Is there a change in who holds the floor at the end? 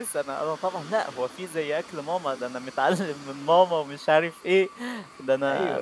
Yes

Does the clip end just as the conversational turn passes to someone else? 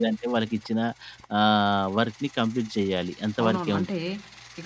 Yes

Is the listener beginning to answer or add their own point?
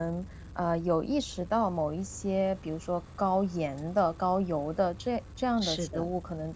No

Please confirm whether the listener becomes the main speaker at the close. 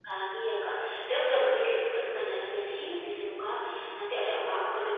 No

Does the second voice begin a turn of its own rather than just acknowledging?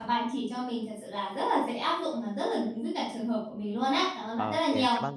Yes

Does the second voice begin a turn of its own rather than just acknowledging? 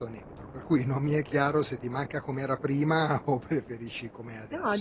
Yes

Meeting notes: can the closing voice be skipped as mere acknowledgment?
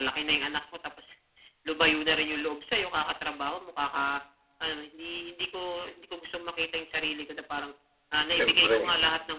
Yes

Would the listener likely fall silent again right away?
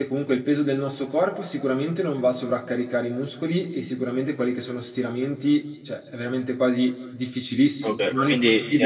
No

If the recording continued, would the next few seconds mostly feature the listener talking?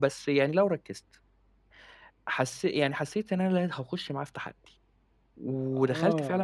Yes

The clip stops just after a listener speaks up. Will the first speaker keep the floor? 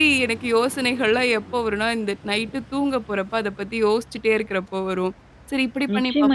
No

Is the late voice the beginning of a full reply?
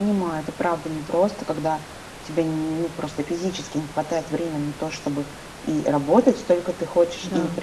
No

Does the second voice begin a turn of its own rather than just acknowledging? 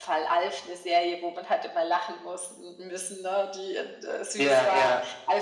No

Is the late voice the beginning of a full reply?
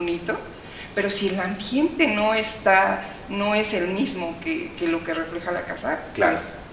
No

